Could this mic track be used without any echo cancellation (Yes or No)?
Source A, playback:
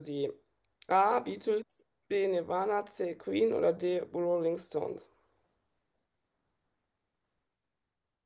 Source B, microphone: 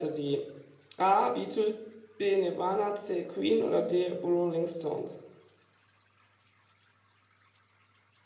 No